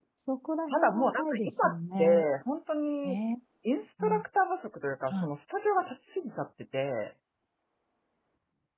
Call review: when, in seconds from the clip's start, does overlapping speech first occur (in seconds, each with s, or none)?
0.7 s